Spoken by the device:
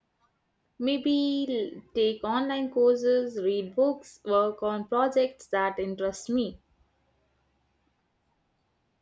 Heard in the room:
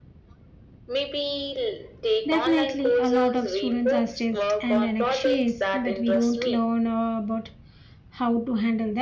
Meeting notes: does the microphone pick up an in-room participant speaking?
Yes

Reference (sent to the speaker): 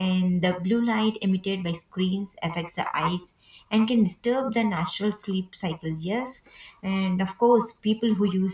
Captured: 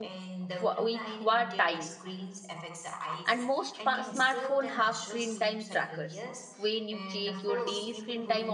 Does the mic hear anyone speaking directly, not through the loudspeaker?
Yes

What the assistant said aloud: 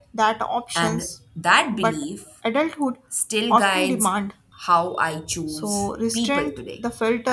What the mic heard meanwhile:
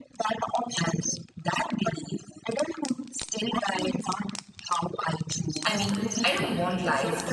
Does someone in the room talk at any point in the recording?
Yes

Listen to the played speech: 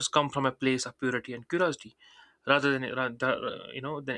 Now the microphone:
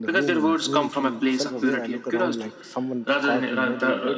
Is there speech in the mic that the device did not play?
Yes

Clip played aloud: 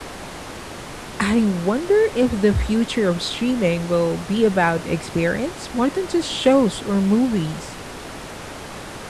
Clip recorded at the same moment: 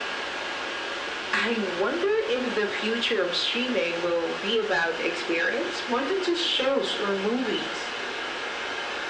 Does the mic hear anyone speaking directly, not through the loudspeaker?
No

